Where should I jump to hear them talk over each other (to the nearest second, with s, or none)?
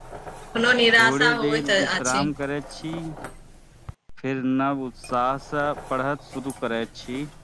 1 s